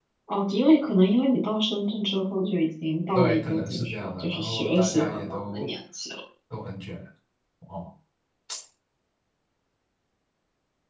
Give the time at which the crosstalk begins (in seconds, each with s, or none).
3.1 s